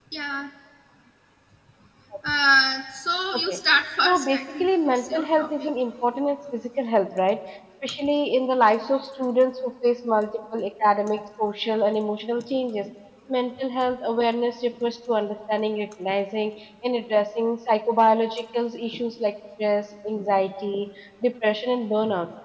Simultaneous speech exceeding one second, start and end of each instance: 4.0-5.7

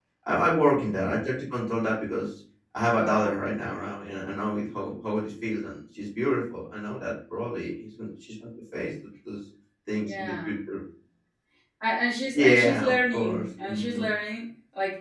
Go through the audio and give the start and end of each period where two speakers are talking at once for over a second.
12.3-14.0

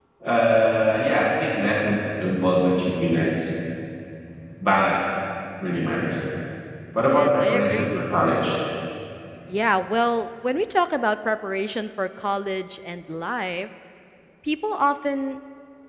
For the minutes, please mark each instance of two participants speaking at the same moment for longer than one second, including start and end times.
7.0-8.4

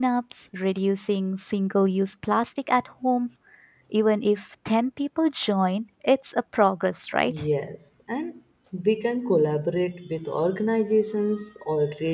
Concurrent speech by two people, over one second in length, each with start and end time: none

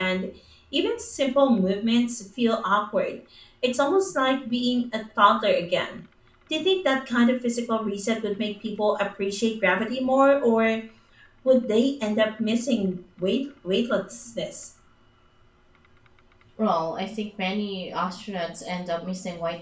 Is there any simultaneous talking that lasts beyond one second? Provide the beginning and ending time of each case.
none

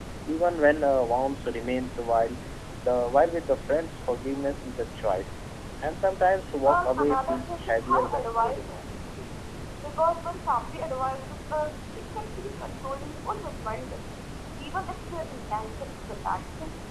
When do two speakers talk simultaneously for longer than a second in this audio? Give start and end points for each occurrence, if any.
6.6-8.9

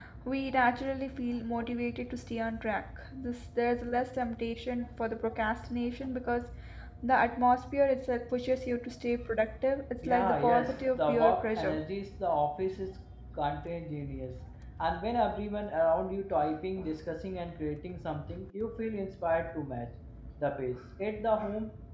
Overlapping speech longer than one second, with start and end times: 10.0-11.8

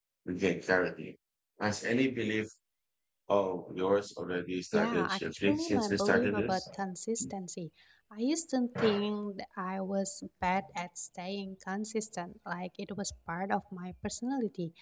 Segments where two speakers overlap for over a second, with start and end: 4.7-6.7

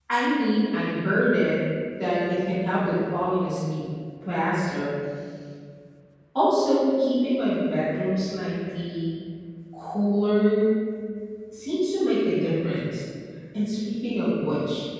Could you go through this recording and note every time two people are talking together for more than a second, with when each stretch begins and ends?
none

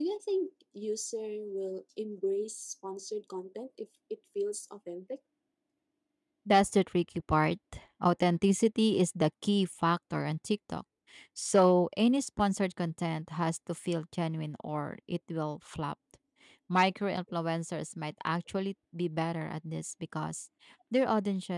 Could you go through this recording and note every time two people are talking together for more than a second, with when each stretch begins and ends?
none

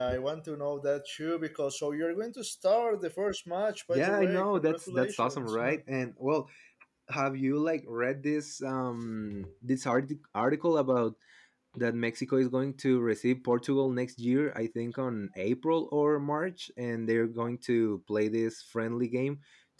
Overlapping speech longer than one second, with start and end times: 3.9-5.6

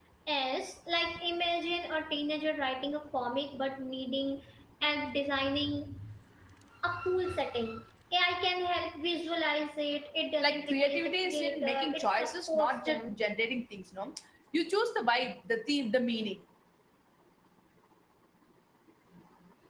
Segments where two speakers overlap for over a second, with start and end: 10.4-13.2

